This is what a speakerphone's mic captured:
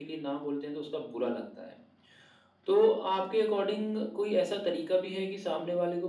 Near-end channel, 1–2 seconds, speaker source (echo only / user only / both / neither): echo only